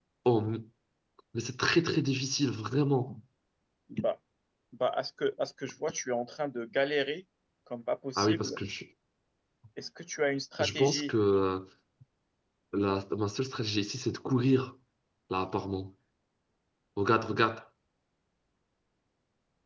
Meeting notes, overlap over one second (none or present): none